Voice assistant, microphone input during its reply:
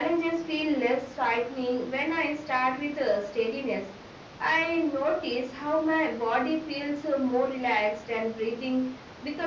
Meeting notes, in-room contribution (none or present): none